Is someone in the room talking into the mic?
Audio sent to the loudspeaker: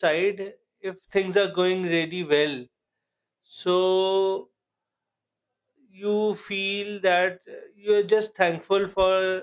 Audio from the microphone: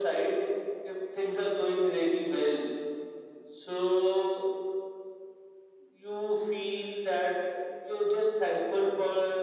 No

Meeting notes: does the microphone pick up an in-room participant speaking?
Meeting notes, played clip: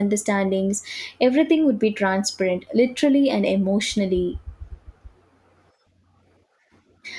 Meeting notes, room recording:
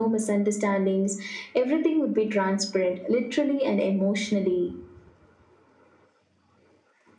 No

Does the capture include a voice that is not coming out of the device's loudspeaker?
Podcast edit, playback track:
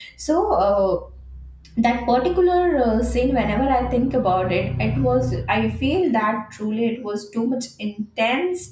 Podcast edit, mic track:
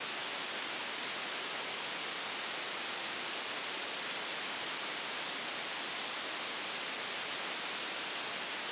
No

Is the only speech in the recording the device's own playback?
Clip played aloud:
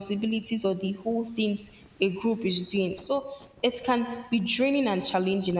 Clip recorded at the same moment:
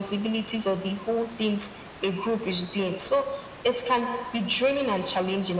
Yes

